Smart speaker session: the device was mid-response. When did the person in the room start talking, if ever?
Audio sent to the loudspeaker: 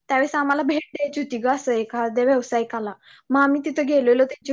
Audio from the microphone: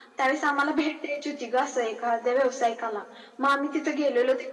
none

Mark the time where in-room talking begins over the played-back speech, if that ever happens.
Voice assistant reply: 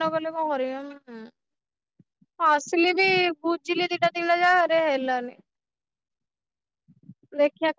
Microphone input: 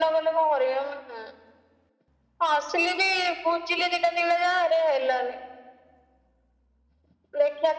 none

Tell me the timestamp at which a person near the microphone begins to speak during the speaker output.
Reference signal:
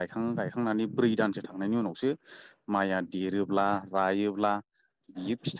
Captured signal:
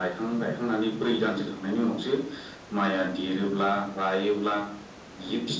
none

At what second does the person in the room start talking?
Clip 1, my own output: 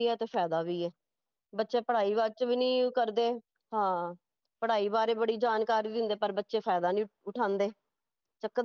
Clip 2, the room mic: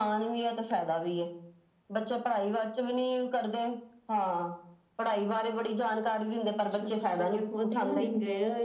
6.5 s

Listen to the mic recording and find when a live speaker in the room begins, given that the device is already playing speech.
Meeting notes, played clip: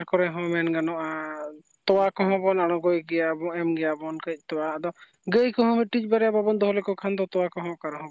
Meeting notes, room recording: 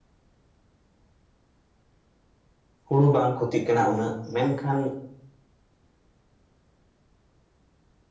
2.9 s

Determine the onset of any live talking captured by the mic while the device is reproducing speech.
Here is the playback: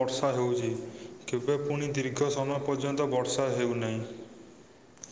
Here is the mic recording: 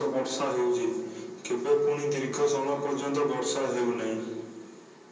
none

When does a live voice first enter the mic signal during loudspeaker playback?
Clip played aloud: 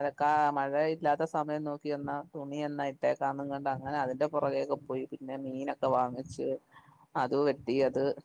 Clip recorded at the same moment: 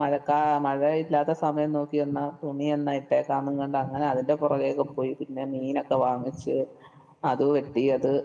none

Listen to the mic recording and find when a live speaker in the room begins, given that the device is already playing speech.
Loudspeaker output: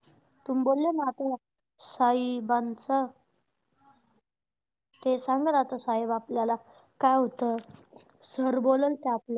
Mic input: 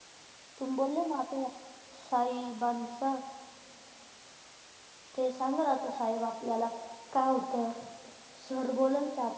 none

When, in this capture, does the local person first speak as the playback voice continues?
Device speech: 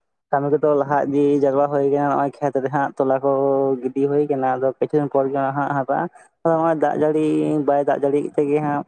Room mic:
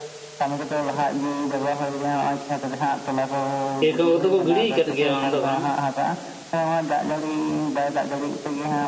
3.8 s

